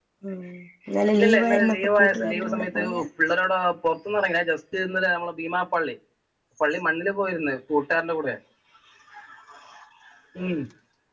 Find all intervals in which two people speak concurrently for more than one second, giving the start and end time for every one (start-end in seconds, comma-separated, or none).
1.1-2.8